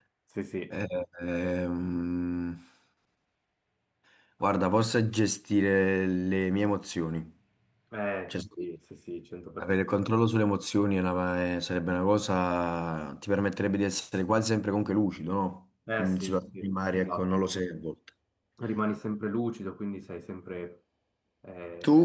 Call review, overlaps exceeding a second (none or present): present